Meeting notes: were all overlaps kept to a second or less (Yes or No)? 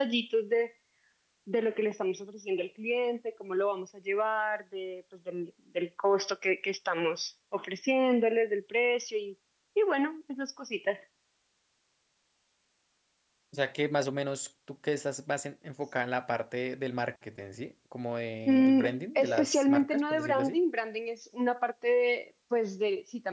No